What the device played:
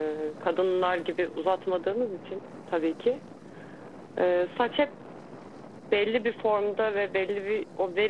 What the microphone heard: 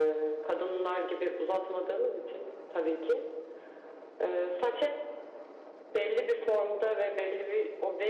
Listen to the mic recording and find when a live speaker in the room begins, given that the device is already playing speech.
none

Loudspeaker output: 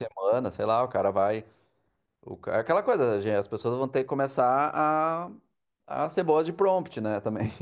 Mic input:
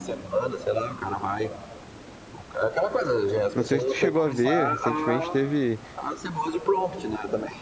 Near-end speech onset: 3.5 s

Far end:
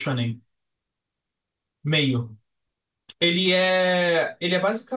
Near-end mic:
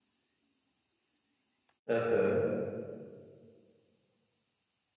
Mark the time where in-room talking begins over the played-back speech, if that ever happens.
1.9 s

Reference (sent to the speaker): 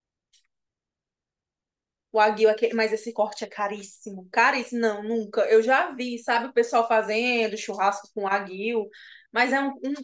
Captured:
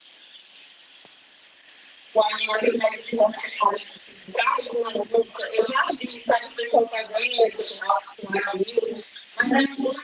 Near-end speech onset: none

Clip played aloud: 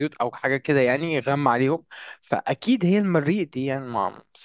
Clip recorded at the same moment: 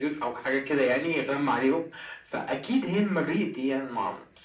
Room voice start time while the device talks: none

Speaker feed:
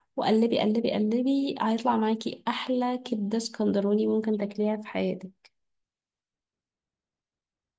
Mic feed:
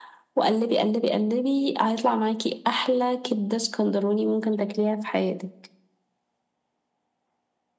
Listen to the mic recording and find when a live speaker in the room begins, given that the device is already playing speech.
none

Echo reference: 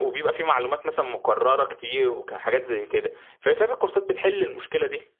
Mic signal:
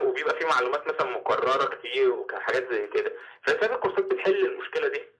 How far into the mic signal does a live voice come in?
none

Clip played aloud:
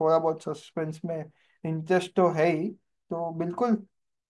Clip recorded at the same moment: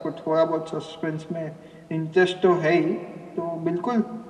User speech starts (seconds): none

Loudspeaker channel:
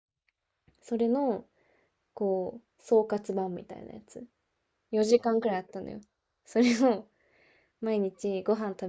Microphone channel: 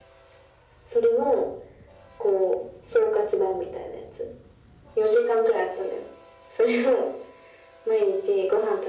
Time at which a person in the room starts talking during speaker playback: none

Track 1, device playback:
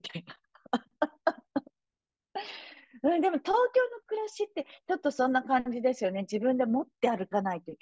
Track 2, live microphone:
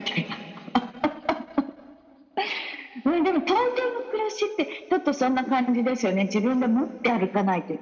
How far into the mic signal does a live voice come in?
none

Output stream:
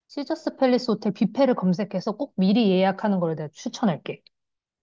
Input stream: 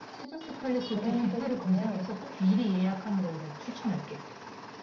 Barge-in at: 0.9 s

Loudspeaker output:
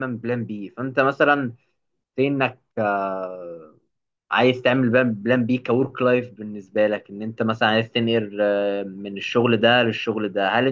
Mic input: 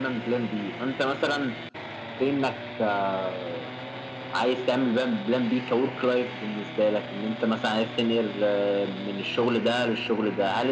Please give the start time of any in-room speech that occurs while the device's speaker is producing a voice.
none

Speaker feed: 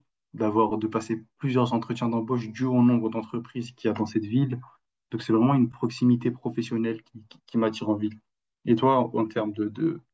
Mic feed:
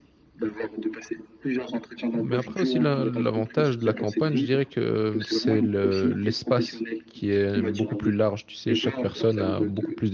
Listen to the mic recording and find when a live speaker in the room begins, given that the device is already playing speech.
2.2 s

